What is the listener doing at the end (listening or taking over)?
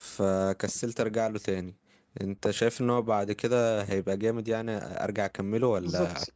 taking over